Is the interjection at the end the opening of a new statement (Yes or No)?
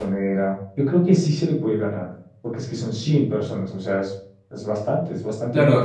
Yes